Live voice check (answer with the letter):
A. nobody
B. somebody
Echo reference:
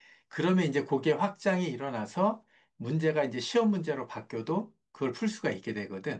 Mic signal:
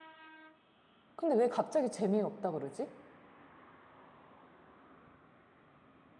B